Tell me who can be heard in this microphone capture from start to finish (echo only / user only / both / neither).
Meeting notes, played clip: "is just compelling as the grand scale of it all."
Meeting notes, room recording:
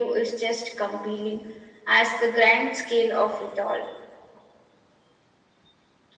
echo only